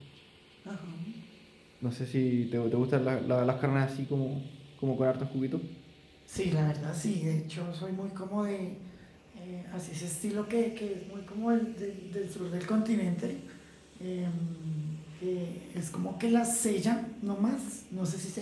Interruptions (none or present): none